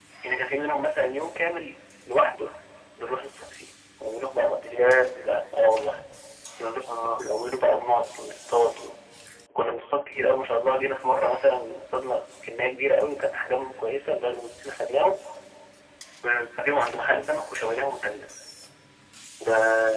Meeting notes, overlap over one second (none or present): none